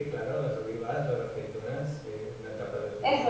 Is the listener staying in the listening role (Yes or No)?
No